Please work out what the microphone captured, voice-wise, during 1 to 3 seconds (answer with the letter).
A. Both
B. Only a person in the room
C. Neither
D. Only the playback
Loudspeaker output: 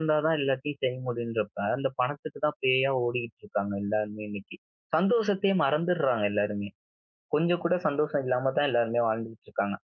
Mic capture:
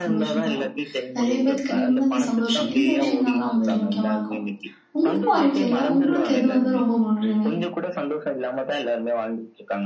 A